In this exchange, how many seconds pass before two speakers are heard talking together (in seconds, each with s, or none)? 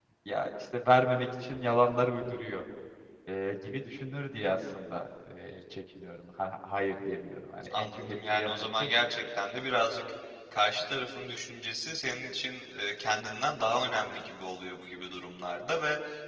7.6 s